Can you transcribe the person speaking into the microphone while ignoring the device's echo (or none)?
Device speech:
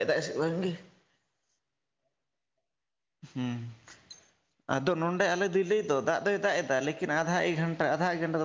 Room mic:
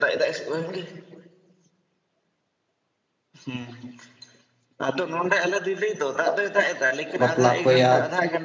ᱵᱟᱯᱞᱟᱜ ᱠᱚᱭᱟ